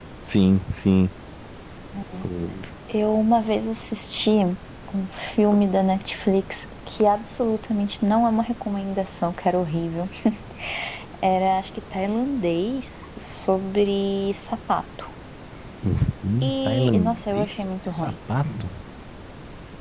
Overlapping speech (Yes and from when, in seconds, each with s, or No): Yes, from 16.4 s